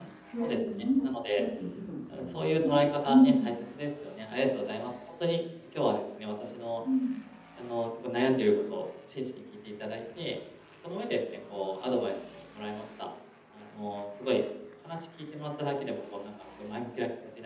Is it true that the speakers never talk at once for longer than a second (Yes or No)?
No